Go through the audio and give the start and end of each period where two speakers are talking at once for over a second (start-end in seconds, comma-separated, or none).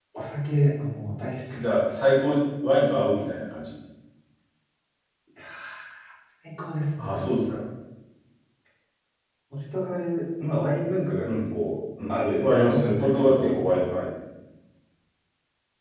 12.1-13.8